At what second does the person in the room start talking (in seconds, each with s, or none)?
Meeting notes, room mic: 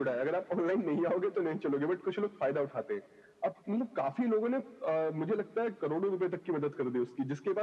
none